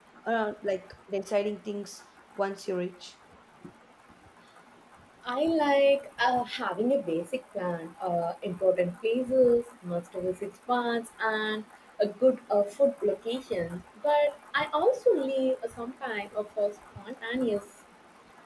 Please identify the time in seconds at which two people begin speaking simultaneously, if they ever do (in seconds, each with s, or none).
none